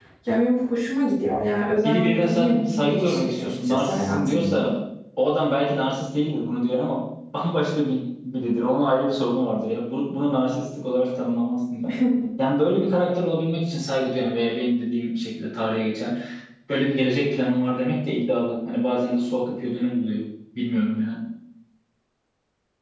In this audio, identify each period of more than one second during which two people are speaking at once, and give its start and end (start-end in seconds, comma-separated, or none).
1.8-4.7